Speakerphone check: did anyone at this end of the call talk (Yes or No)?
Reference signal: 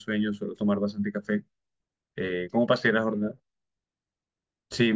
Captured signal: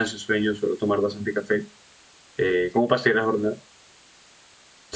No